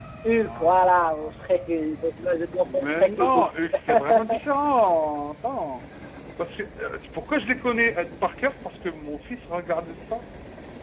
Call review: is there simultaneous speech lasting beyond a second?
Yes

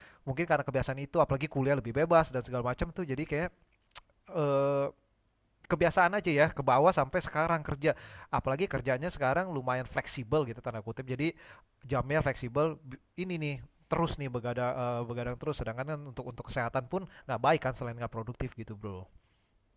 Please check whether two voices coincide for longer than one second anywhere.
No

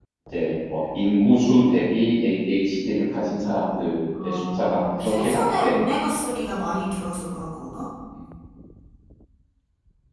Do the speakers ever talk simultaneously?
Yes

